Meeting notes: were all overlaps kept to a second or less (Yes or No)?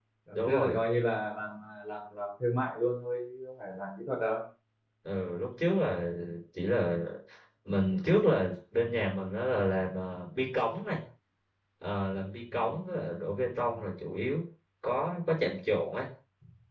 Yes